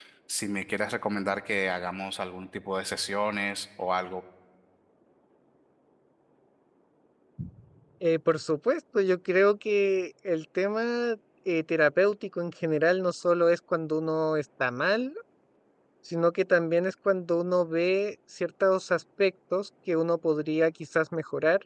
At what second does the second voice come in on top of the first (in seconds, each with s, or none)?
none